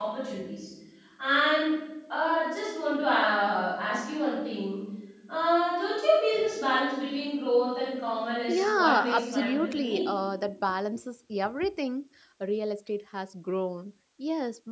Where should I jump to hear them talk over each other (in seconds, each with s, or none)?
8.5 s